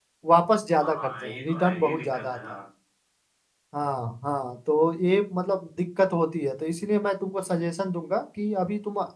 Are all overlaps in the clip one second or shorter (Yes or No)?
No